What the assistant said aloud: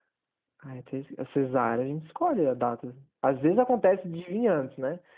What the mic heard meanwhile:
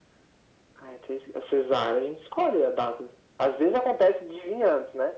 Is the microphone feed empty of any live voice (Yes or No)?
Yes